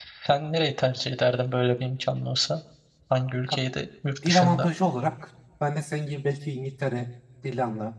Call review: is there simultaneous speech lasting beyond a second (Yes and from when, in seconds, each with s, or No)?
No